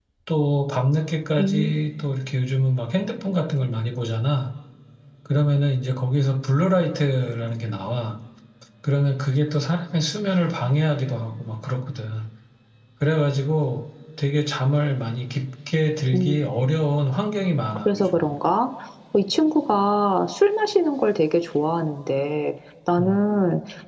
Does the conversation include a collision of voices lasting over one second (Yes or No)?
No